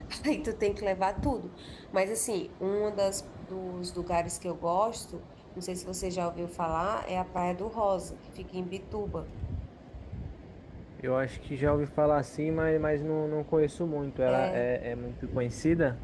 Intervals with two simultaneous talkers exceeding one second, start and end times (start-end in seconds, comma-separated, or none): none